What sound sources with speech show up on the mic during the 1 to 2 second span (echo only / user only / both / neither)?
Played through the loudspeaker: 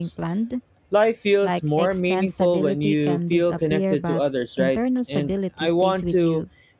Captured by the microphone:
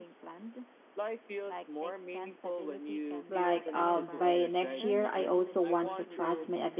echo only